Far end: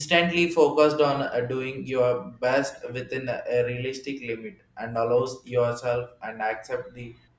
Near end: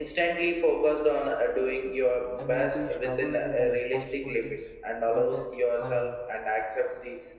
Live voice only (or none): I may be struggle with the responsibilities. But that I mean,